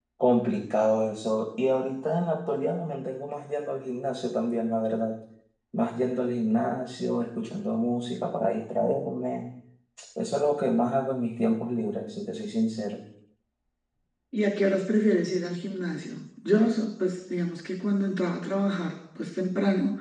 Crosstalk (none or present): none